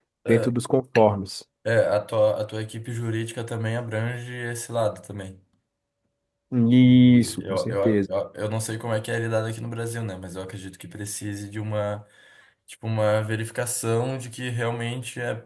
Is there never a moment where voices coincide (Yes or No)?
No